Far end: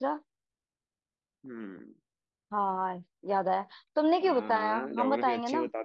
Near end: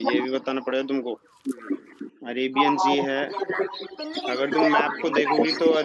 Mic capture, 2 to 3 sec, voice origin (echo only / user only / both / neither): both